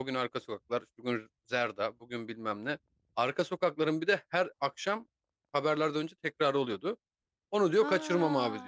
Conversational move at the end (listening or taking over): listening